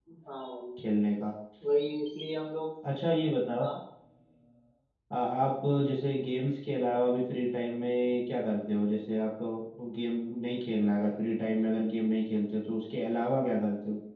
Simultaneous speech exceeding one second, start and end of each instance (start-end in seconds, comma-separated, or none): none